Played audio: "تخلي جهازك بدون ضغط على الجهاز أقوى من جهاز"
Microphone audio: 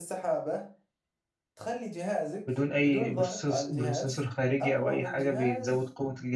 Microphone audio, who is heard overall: both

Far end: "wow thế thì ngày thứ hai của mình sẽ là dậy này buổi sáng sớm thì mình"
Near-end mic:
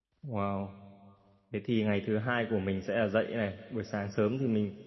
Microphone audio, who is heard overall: echo only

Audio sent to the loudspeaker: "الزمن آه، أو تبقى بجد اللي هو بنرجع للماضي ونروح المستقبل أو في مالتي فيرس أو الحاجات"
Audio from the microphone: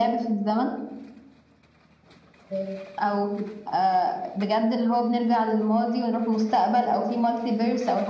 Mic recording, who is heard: echo only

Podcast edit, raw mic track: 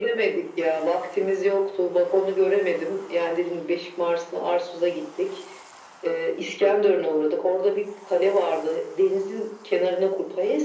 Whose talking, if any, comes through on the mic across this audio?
echo only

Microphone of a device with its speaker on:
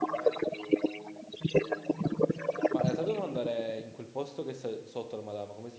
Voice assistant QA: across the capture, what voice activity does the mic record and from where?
both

